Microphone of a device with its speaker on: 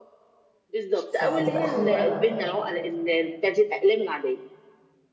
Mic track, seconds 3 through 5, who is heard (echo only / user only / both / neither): echo only